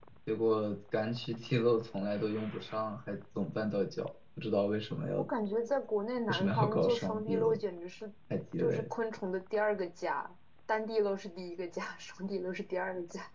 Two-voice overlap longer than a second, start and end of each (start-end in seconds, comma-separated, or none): 6.3-7.6